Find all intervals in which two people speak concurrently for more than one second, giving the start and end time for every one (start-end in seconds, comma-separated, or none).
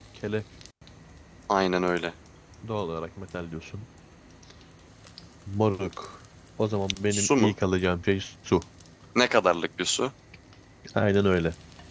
none